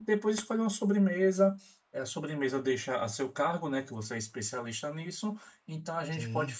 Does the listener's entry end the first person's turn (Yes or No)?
No